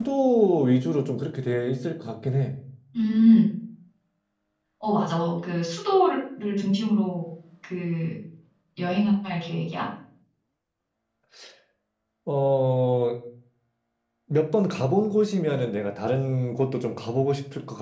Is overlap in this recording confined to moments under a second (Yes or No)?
Yes